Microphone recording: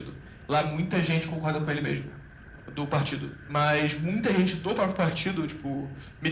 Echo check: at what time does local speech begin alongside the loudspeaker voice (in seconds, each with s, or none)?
none